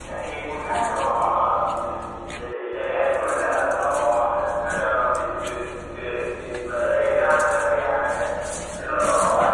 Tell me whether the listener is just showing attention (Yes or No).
Yes